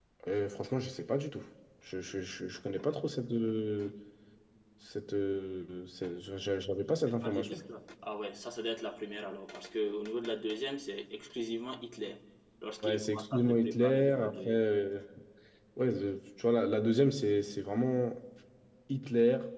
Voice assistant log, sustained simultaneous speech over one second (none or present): present